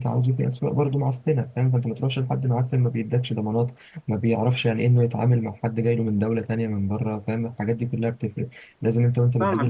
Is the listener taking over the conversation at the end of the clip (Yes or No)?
Yes